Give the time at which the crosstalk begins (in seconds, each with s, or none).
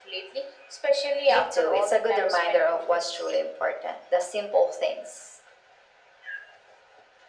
1.3 s